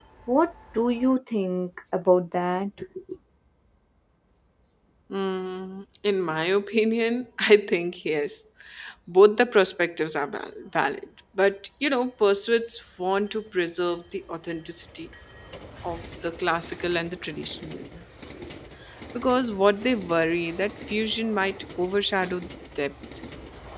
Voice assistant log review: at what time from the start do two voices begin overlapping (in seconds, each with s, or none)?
none